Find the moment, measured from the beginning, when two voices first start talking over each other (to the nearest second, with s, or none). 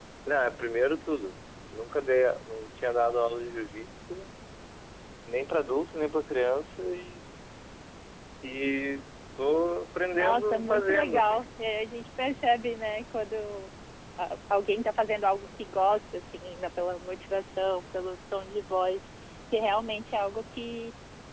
10 s